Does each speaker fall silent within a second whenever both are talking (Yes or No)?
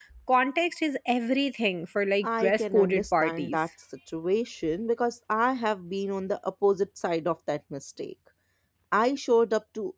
No